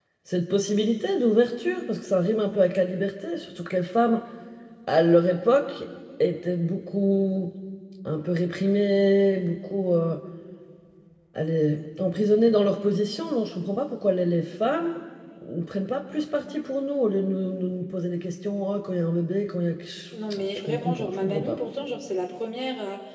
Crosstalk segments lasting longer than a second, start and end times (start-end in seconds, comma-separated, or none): 20.3-21.6